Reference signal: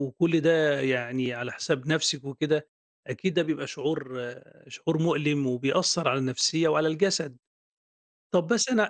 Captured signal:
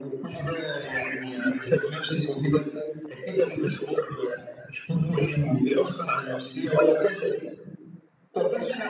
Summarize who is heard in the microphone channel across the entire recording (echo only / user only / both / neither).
echo only